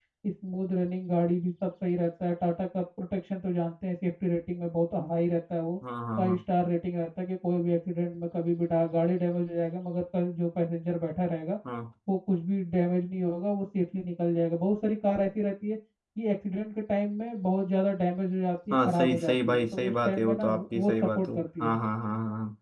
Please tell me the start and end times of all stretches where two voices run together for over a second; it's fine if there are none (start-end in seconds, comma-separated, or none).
18.7-21.8